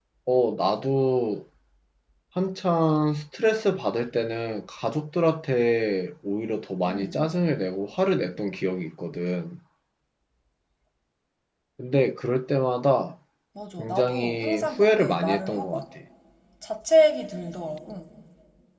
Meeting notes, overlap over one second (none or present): present